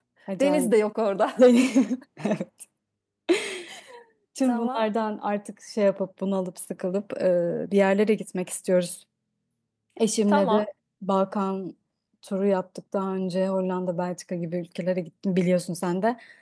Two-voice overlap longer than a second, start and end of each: none

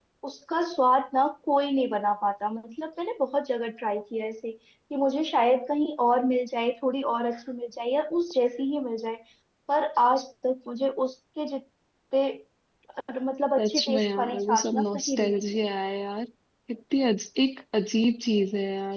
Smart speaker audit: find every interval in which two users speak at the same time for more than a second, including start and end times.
13.6-15.6

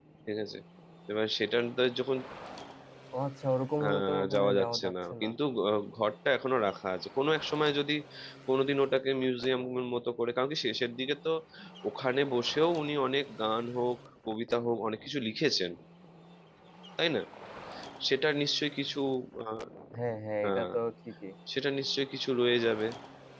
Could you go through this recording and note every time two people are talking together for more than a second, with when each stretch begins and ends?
3.9-5.3

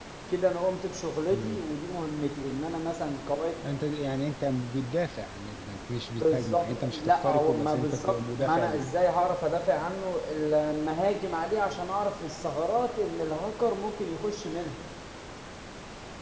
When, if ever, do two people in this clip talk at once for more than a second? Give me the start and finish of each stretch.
6.2-8.9

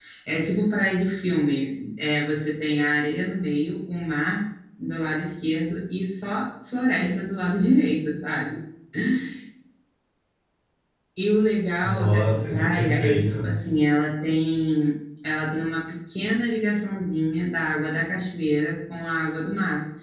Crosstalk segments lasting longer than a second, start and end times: 11.8-13.5

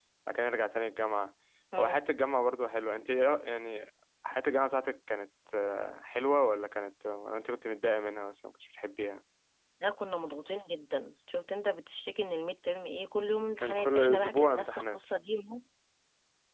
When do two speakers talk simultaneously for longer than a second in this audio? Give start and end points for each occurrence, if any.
13.6-15.0

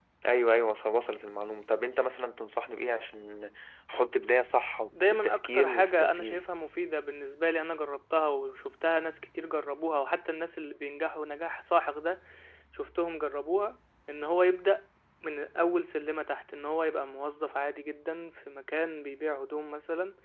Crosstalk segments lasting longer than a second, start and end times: 5.0-6.5

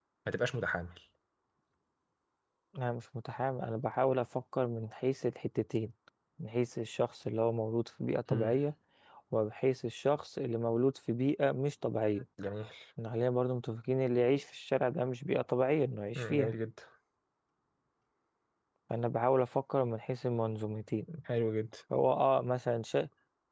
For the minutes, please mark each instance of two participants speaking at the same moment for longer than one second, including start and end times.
none

